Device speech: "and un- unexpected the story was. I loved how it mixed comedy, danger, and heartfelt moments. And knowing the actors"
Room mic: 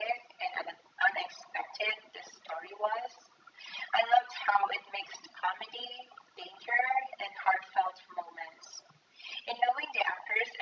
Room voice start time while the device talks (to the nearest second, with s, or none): none